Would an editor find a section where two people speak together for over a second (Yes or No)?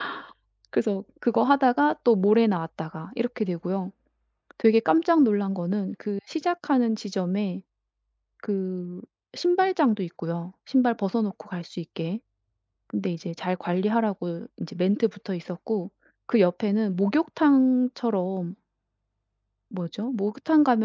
No